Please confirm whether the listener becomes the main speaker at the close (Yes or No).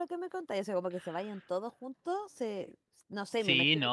Yes